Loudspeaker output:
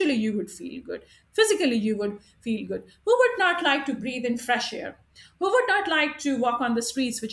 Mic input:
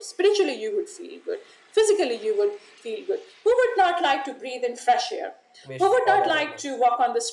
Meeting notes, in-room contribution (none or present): present